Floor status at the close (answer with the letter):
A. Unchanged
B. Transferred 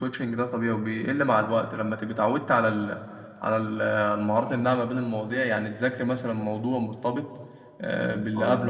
A